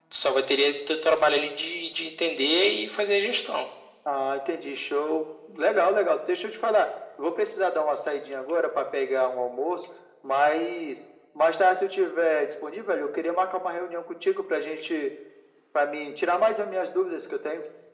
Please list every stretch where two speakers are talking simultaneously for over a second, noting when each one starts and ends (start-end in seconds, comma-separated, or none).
none